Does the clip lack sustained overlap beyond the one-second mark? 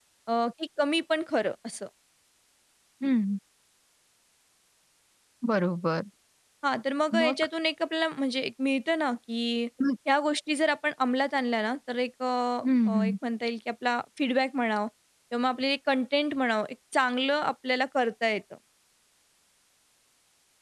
Yes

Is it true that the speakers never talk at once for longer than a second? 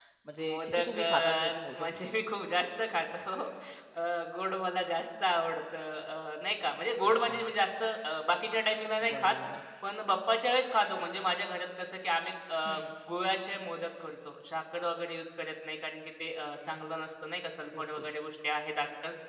No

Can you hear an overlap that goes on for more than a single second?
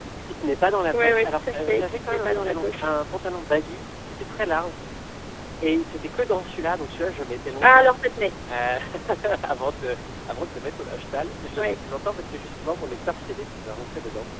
Yes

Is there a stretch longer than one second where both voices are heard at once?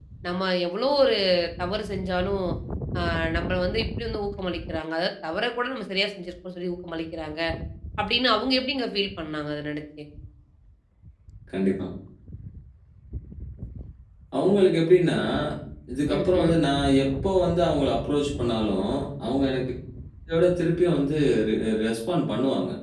No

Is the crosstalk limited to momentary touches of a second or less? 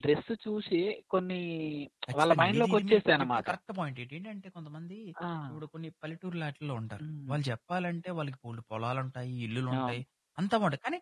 No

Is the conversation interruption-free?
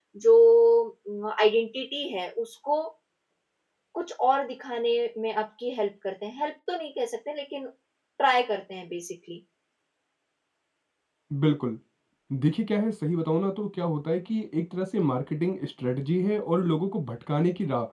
Yes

